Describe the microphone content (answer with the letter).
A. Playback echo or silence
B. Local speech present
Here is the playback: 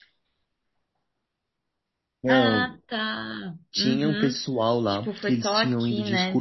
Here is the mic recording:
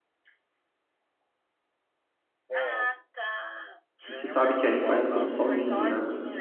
B